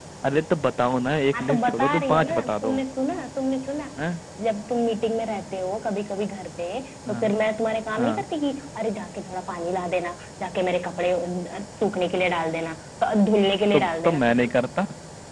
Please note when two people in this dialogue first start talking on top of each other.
1 s

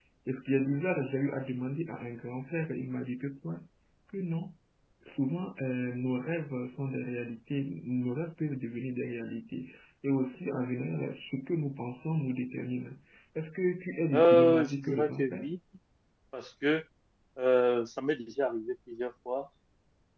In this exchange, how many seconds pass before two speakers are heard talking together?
14 s

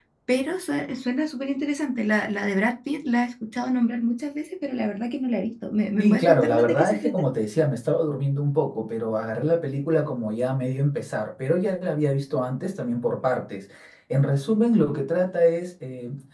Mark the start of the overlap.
6 s

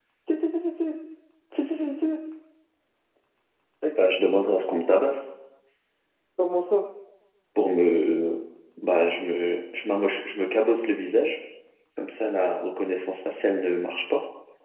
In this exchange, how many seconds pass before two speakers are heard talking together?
none

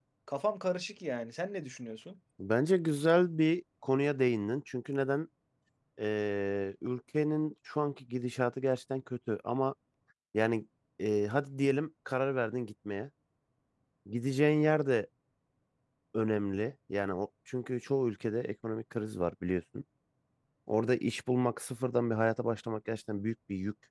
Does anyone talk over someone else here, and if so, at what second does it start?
none

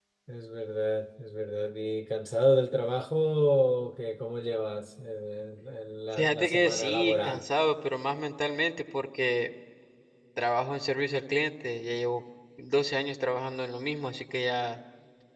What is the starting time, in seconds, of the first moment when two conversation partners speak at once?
6 s

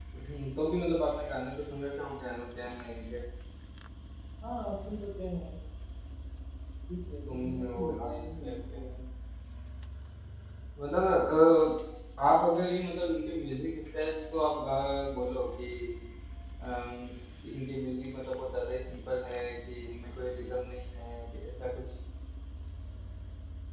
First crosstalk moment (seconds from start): 7 s

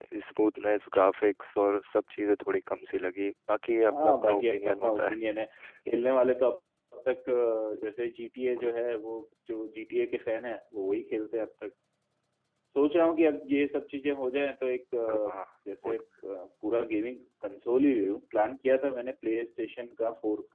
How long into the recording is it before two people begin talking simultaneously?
4 s

